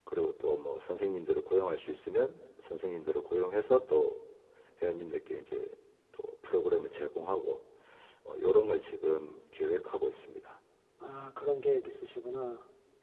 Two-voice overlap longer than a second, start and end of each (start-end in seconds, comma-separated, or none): none